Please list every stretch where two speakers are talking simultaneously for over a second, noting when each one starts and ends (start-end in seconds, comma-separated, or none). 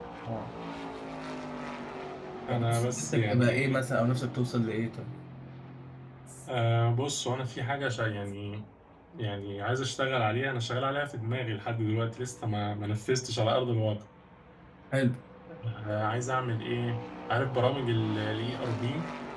2.5-3.8